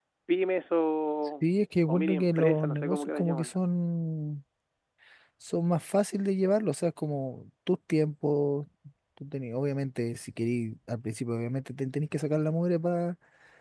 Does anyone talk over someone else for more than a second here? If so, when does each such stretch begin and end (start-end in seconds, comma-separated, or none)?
1.9-3.5